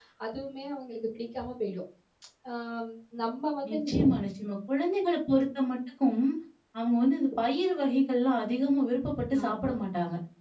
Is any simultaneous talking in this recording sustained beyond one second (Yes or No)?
No